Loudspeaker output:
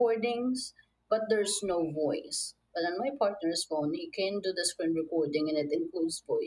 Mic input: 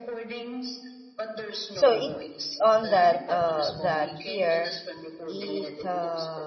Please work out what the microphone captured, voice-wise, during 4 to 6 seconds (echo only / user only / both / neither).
both